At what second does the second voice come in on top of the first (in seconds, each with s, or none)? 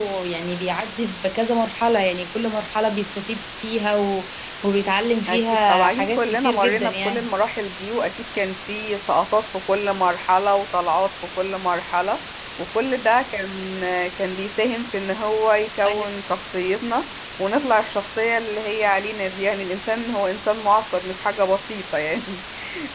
5.3 s